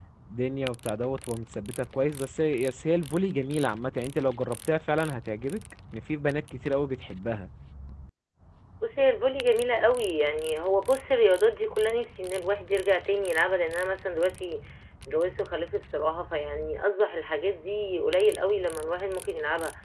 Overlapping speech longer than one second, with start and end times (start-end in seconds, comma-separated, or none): none